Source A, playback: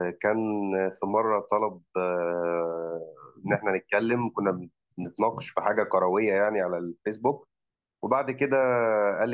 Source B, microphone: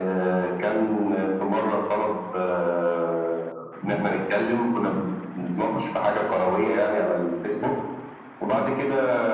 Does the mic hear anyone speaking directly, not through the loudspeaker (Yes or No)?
No